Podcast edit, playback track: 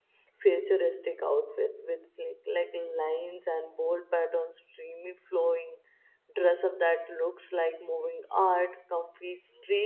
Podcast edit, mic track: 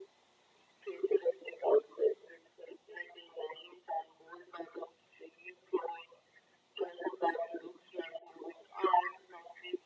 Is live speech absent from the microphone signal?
Yes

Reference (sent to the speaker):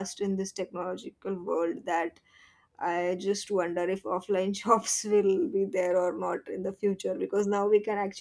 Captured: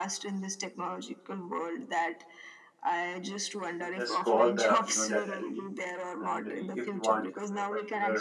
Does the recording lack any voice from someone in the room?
No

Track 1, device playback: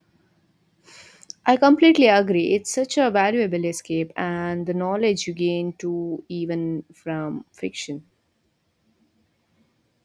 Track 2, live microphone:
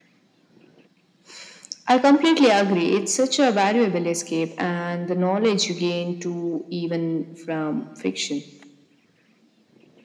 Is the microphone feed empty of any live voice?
Yes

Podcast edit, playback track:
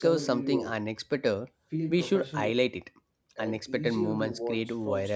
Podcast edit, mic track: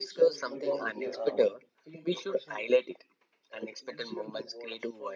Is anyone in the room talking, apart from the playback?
Yes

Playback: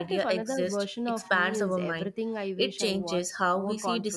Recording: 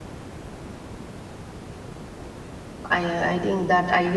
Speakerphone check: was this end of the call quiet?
No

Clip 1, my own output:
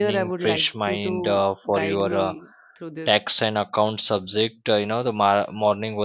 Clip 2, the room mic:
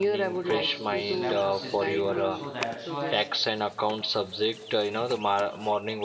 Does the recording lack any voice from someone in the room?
No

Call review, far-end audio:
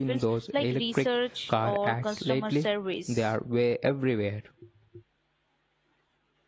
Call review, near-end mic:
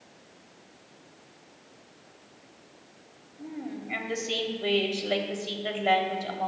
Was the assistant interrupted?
Yes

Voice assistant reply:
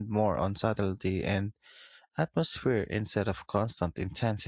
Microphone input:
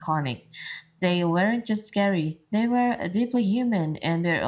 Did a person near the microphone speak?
Yes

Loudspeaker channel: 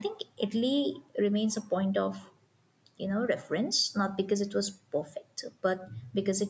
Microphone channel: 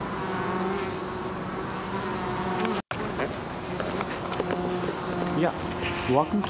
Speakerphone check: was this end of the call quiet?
No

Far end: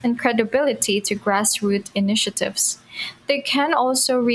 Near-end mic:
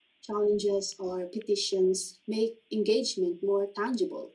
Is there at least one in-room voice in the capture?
Yes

